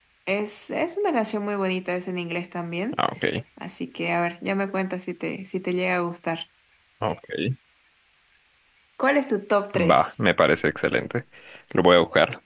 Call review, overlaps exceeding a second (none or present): none